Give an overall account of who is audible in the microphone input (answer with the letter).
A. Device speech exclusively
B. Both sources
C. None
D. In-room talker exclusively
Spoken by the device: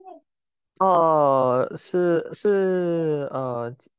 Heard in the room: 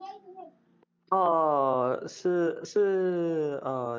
A